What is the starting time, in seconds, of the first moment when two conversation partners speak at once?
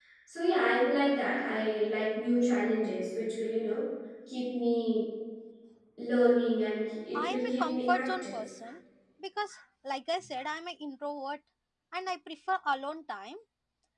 7 s

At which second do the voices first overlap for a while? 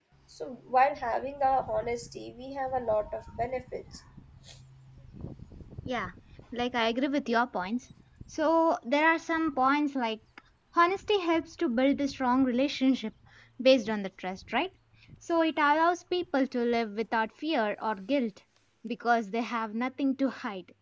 none

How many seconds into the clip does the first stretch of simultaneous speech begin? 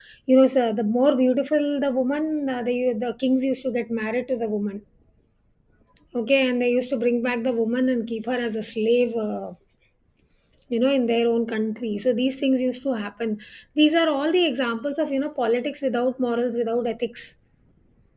none

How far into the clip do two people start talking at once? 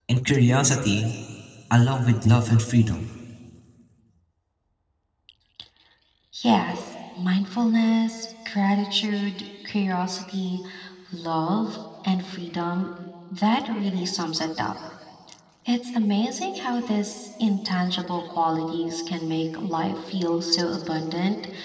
none

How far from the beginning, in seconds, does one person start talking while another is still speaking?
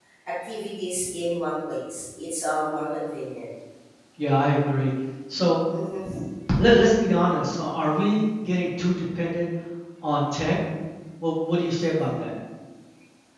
none

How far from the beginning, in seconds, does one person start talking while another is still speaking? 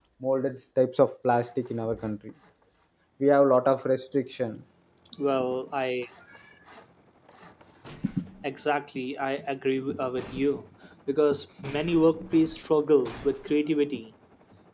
none

